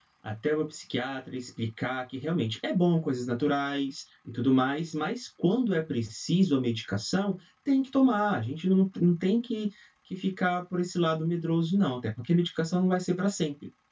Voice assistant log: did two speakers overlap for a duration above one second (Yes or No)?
No